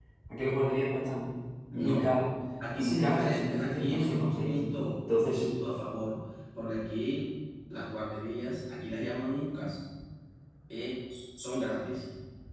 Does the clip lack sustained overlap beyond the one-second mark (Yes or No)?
No